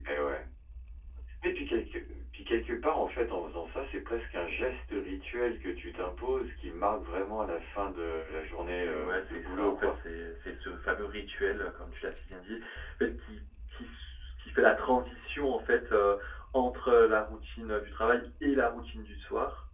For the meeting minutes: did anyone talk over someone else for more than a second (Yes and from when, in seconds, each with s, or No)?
Yes, from 8.7 s